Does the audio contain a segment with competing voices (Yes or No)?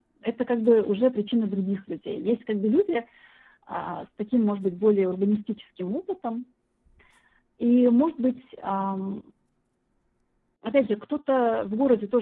No